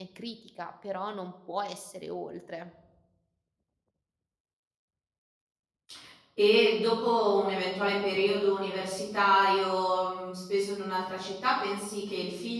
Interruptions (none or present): none